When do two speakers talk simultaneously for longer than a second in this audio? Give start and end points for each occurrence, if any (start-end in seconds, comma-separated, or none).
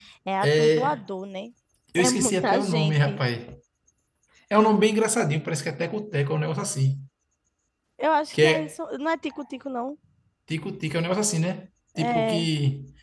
2.0-3.2